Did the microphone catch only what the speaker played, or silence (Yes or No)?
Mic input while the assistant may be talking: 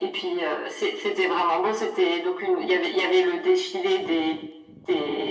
Yes